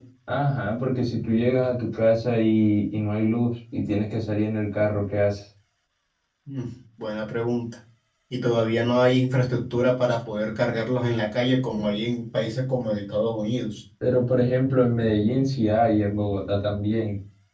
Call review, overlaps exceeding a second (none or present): none